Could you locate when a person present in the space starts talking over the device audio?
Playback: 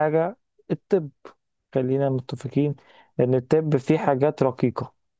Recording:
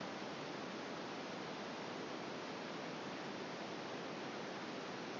none

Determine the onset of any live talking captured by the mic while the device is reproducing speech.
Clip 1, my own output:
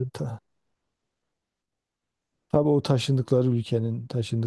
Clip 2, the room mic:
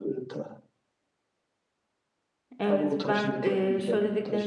2.6 s

